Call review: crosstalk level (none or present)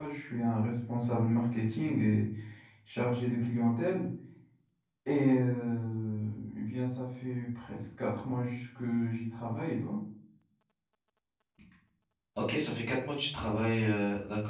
none